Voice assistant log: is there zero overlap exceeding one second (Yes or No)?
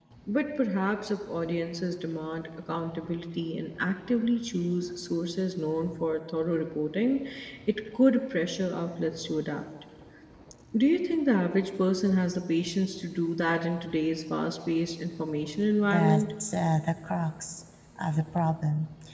Yes